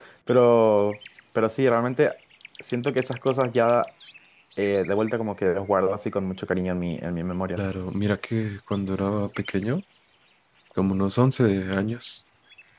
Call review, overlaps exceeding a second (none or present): none